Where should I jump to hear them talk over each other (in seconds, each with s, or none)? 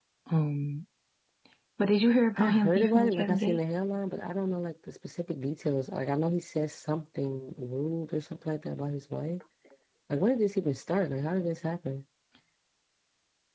2.4 s